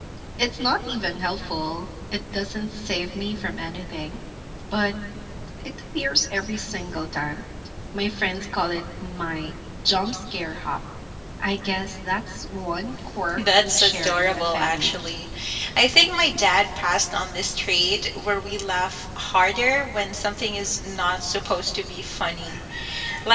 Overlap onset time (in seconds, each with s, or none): 13.4 s